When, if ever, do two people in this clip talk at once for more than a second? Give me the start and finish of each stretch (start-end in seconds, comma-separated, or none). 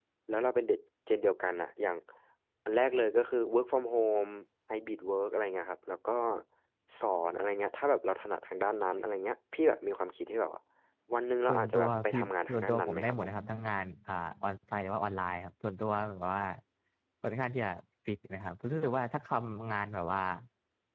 11.5-13.3